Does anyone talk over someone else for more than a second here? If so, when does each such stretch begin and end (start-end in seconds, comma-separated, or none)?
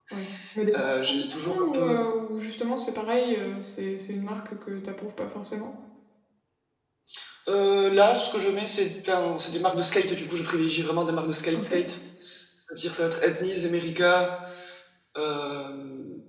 0.7-2.0